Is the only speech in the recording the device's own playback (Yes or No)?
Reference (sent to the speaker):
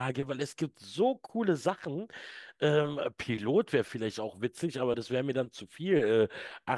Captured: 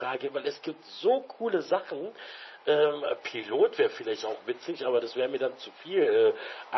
Yes